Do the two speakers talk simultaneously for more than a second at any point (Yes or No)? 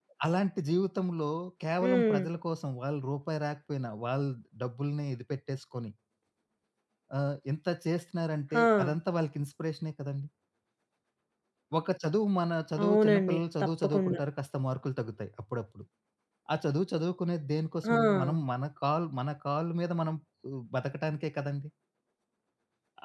Yes